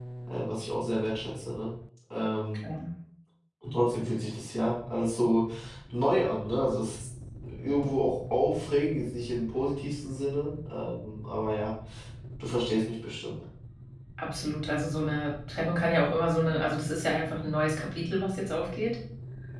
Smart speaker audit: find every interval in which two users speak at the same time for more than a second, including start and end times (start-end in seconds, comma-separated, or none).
none